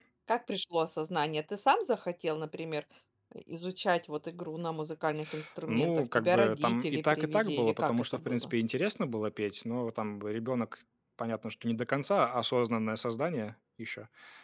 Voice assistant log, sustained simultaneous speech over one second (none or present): present